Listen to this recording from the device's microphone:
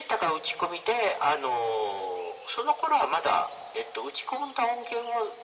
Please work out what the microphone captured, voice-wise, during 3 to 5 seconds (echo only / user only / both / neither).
echo only